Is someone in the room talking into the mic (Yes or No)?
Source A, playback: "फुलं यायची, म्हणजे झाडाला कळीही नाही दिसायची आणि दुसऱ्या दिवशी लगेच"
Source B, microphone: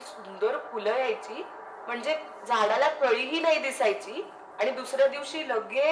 No